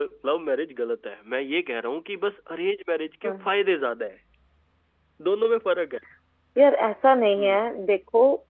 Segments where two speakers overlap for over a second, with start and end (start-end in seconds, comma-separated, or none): none